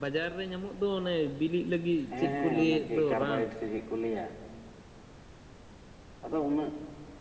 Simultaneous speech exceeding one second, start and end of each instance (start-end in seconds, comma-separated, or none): 2.1-3.4